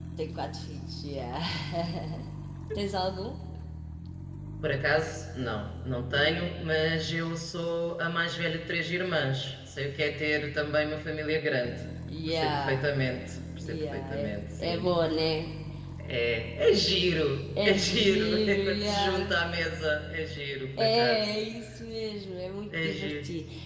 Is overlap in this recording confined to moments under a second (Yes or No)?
No